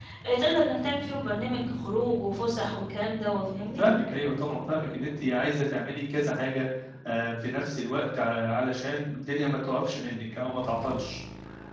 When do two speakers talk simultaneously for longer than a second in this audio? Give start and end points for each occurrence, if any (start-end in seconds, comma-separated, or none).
none